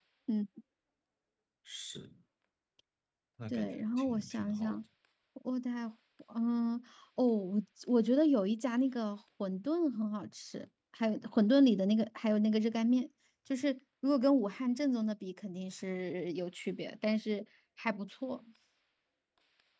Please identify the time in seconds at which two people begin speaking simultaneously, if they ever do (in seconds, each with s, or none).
3.5 s